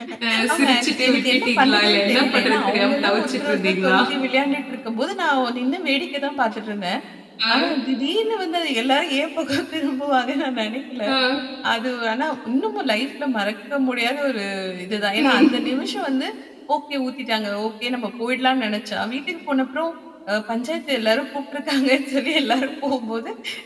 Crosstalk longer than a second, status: present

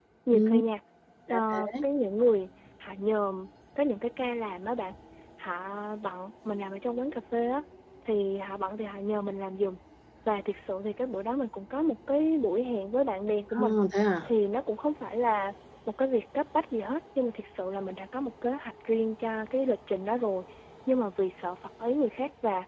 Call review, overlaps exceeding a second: none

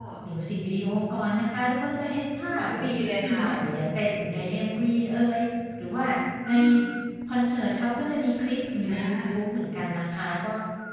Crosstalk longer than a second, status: none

